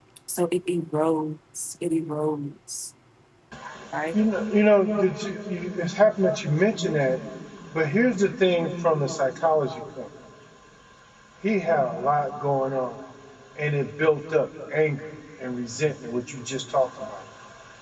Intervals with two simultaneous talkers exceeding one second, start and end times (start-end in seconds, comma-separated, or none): none